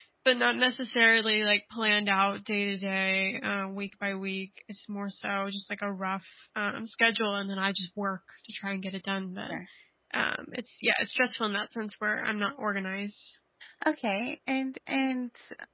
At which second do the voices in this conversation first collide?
none

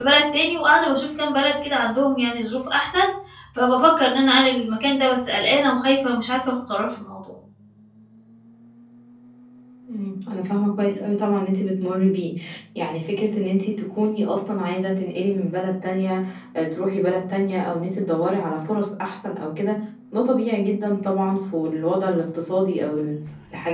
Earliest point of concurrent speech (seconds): none

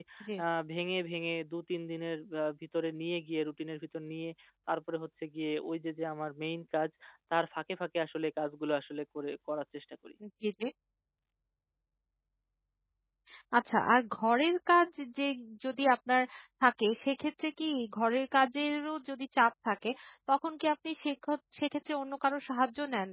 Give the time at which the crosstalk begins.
none

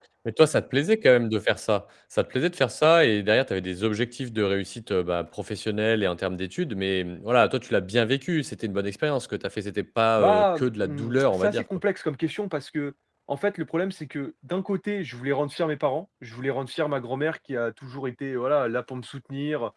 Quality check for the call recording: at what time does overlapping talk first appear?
10 s

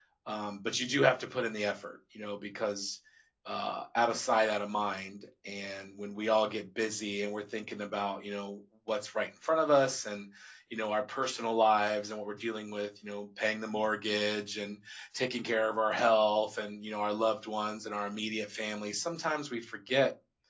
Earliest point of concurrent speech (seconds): none

